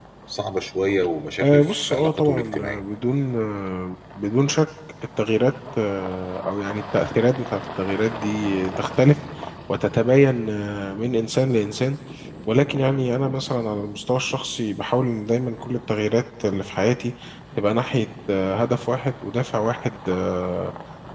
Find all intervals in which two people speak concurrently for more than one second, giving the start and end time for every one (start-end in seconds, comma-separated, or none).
1.4-2.8